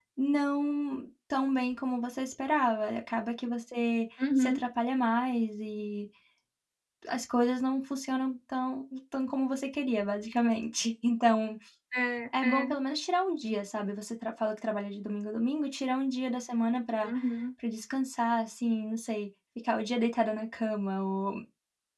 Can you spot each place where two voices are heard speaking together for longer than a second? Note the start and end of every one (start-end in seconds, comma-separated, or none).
none